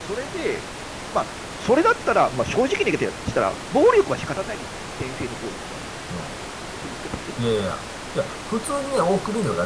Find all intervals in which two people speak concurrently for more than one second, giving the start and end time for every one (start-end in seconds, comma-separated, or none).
none